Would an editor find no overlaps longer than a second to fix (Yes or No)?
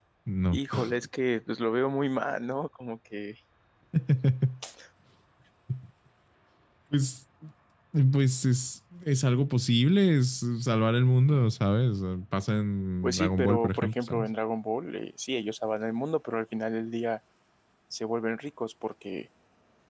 No